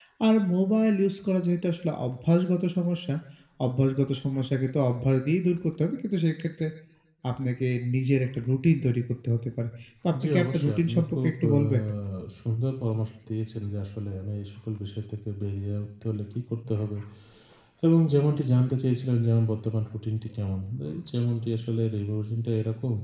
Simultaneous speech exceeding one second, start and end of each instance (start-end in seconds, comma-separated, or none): 10.2-11.5